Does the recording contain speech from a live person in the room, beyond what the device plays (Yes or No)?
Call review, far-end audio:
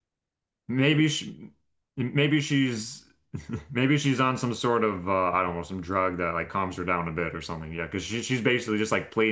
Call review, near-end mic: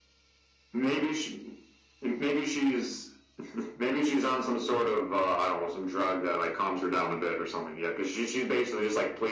No